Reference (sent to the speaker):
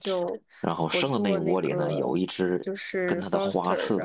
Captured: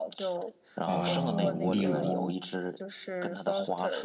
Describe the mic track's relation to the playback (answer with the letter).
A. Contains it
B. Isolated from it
A